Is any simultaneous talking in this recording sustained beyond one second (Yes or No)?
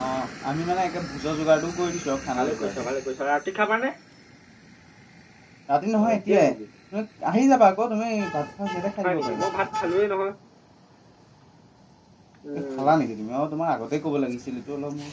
No